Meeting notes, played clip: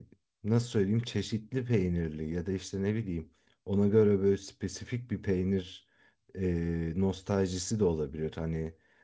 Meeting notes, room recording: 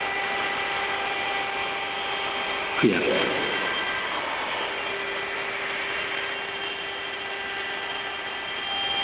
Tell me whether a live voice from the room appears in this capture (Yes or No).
Yes